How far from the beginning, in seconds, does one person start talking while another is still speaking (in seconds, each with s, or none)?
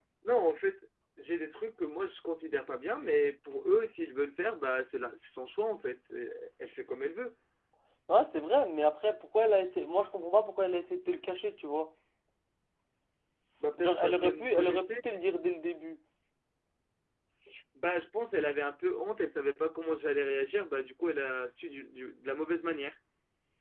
13.8 s